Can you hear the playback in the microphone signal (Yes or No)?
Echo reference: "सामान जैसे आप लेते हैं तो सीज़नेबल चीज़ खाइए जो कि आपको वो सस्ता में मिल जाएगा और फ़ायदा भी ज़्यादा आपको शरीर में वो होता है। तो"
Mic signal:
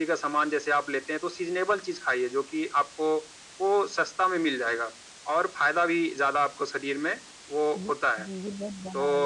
Yes